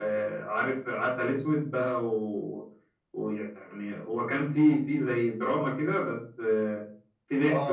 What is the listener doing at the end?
taking over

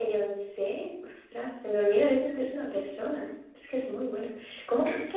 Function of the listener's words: listening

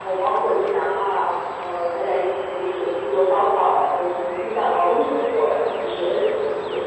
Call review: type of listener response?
listening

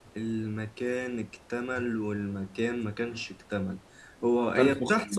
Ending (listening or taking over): listening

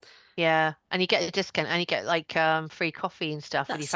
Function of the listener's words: taking over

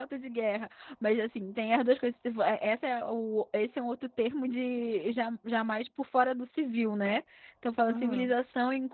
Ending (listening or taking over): listening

